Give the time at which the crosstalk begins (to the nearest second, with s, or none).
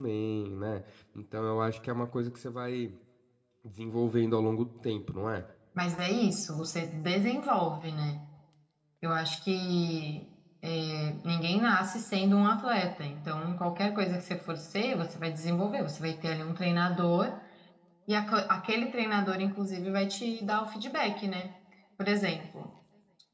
none